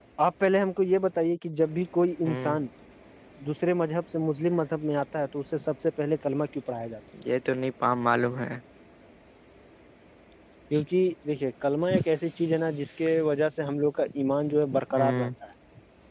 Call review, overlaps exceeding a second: none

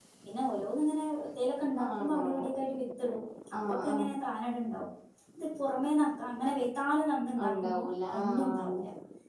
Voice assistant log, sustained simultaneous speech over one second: present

